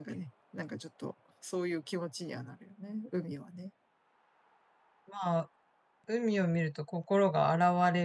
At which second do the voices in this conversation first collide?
none

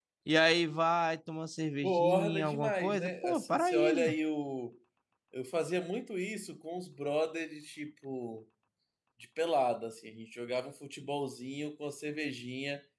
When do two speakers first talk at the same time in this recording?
1.8 s

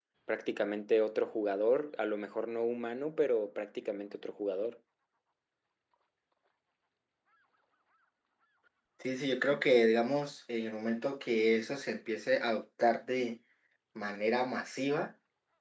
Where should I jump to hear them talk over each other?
none

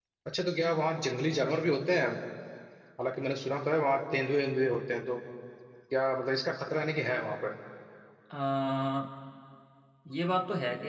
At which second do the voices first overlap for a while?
none

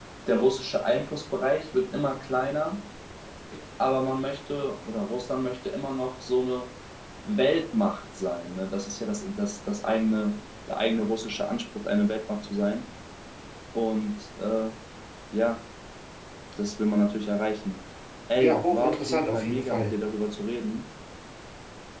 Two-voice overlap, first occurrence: 18.4 s

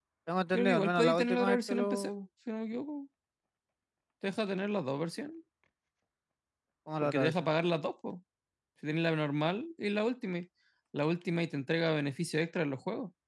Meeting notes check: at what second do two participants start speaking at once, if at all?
0.5 s

